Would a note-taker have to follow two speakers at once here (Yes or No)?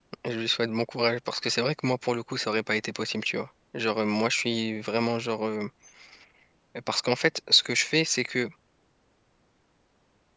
No